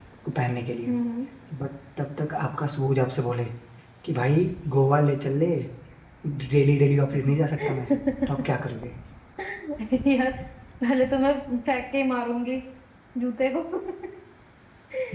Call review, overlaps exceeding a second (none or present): none